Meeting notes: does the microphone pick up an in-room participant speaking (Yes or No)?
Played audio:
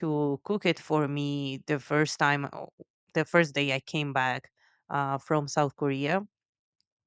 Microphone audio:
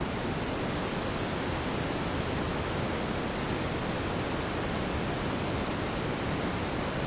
No